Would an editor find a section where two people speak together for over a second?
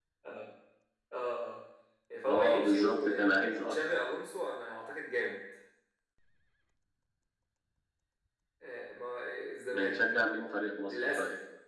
Yes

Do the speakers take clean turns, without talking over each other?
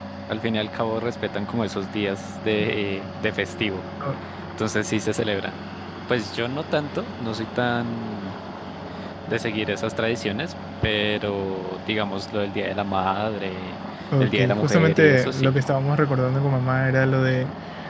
No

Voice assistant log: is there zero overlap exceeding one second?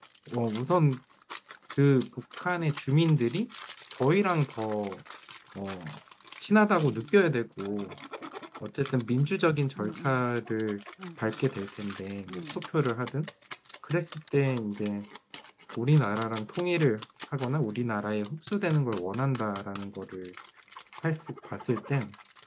Yes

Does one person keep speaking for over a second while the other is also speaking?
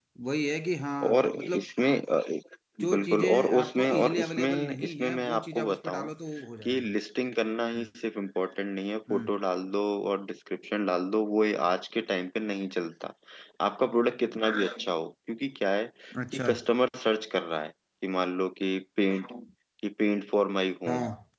Yes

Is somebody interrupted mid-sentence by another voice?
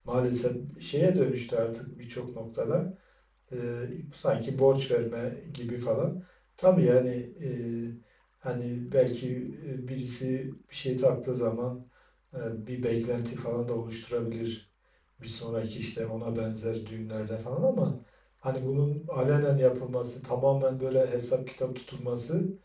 No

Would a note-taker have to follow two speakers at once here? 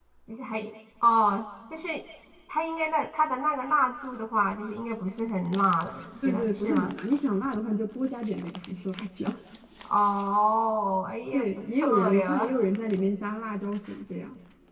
Yes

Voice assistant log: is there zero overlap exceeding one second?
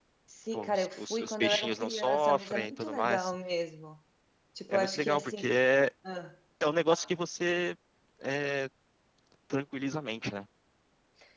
No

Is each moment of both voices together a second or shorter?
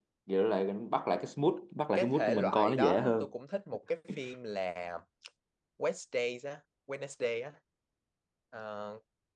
No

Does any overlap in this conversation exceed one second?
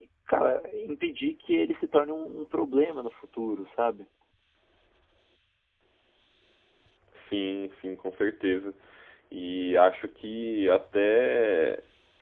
No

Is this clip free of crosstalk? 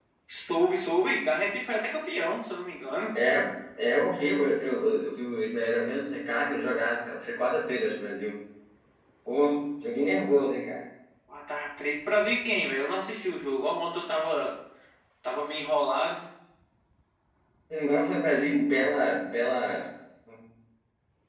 Yes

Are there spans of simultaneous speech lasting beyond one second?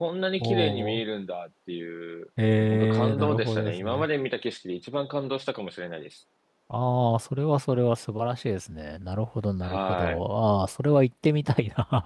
Yes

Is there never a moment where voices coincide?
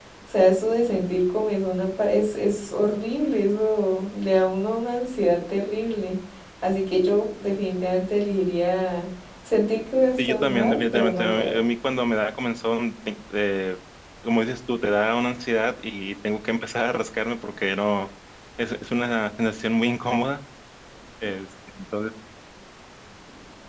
No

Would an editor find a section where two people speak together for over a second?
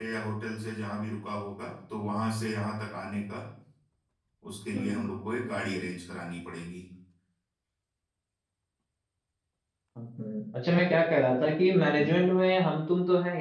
No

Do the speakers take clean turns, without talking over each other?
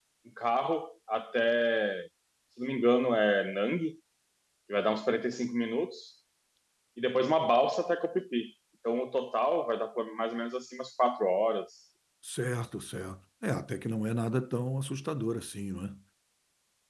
Yes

